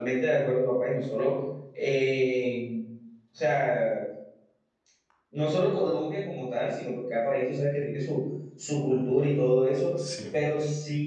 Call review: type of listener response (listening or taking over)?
listening